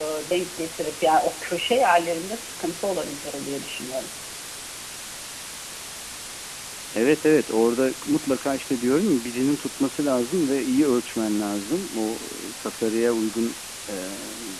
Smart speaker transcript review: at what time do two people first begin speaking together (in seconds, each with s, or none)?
none